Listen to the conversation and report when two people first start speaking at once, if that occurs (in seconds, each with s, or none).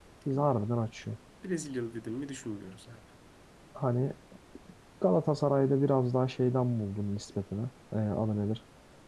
none